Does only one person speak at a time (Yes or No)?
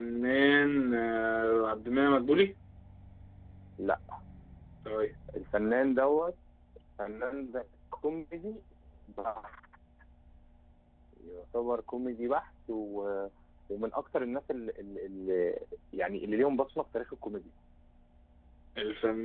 Yes